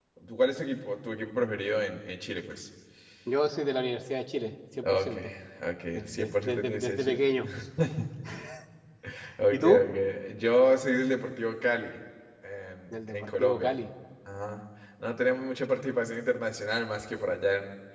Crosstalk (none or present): present